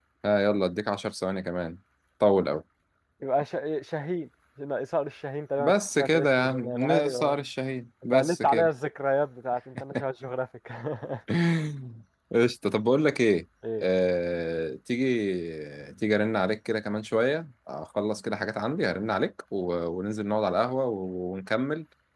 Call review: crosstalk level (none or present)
present